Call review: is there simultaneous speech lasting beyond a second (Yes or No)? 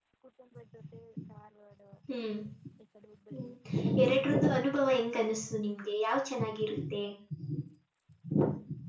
No